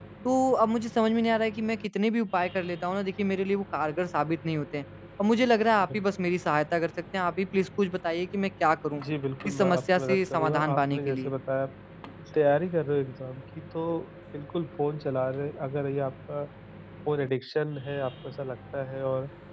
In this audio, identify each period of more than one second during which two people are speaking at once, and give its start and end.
9.4-11.3

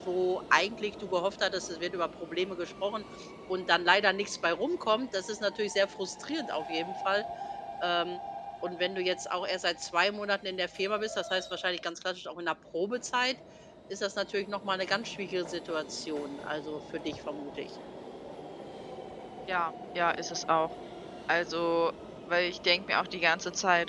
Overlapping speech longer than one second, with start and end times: none

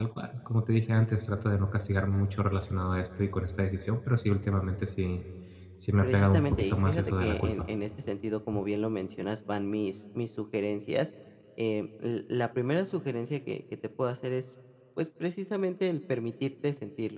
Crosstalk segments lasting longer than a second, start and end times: 6.0-7.6

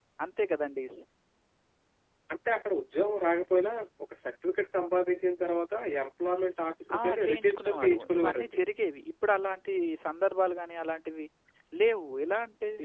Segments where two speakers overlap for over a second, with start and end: 7.0-8.5

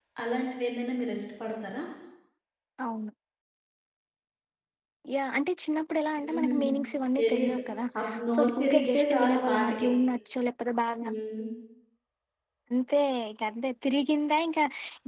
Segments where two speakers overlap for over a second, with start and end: 8.3-9.8

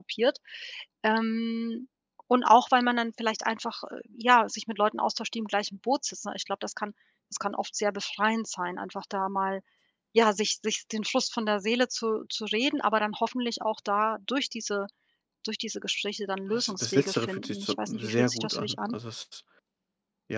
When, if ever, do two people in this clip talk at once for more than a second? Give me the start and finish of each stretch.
16.5-18.9

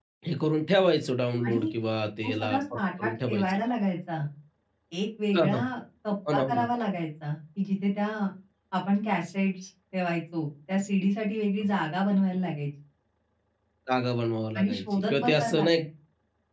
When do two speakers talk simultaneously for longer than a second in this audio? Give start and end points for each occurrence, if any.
2.2-3.5, 14.6-15.8

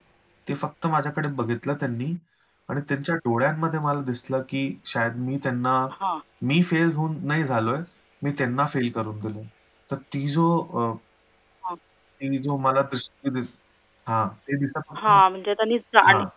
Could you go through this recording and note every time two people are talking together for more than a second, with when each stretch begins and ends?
none

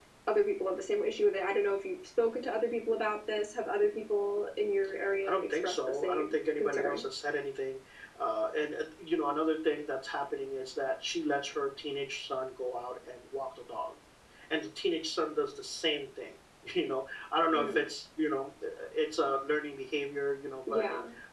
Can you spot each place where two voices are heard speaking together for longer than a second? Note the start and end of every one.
5.2-7.0

